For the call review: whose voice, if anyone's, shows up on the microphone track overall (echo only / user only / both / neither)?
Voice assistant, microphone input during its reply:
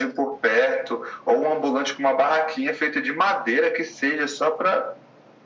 echo only